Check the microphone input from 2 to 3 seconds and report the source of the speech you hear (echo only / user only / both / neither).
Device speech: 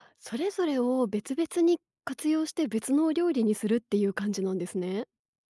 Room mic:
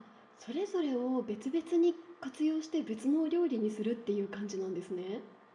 echo only